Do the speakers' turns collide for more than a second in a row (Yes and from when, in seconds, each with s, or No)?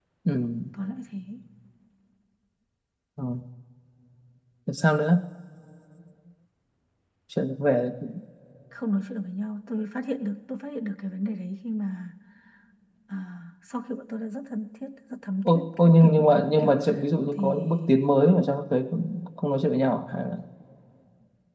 Yes, from 15.4 s